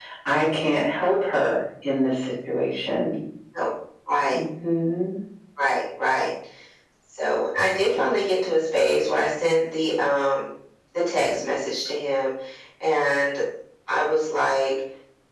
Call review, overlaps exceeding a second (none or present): none